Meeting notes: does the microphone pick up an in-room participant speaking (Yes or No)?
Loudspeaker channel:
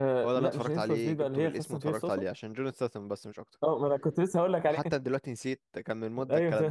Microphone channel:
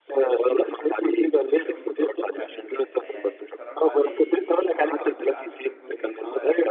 Yes